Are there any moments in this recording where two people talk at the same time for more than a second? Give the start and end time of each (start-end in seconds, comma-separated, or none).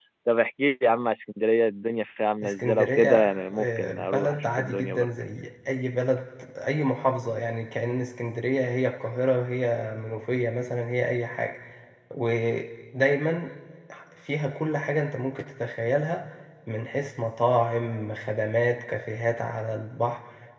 2.4-5.1